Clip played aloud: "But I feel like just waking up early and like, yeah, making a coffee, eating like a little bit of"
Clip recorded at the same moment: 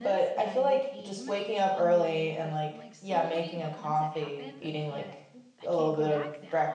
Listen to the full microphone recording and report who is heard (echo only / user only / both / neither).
both